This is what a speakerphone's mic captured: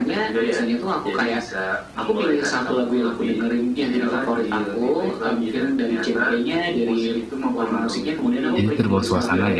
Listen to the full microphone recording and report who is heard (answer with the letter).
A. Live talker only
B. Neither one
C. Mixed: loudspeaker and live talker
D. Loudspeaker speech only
C